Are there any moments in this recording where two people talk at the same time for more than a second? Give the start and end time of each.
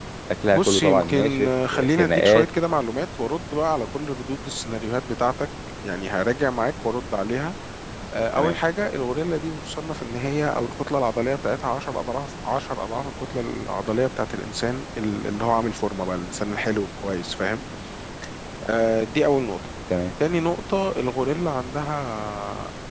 0.5-2.5

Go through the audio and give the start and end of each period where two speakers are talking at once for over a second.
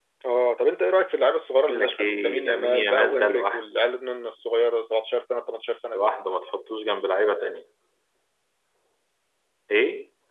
1.7-3.8

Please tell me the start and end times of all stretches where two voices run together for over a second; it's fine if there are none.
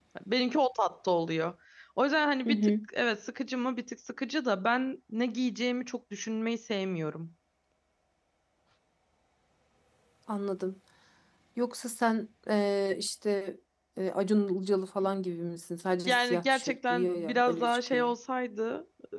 16.1-18.0

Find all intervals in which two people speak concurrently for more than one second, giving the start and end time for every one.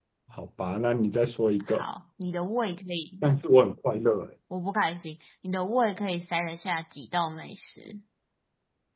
none

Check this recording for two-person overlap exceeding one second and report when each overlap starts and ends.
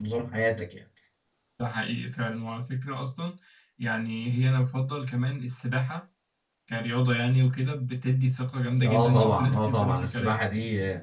8.8-10.4

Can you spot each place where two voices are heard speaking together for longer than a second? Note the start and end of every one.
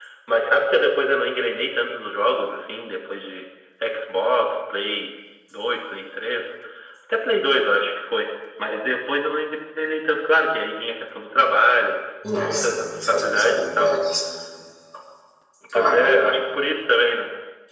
12.4-13.9

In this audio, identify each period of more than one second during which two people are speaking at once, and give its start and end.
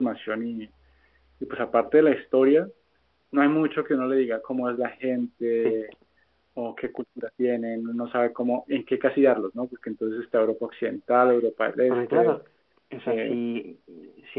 none

